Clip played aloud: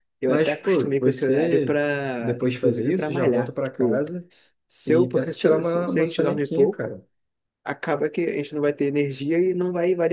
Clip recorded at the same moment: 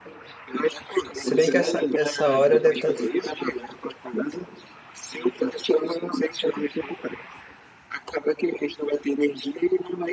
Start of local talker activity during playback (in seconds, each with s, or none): 1.1 s